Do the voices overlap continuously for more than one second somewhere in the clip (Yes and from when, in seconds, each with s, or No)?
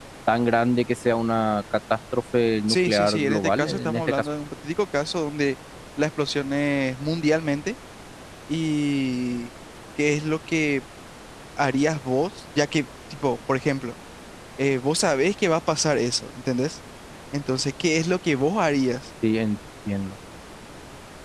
Yes, from 2.7 s